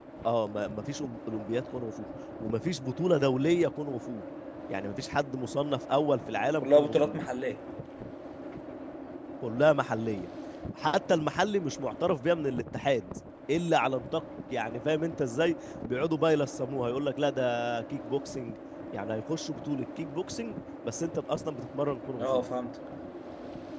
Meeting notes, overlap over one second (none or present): none